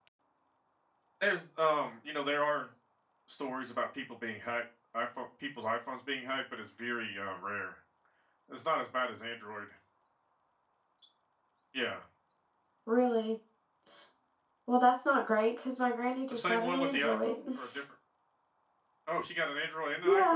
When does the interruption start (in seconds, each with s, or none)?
16.3 s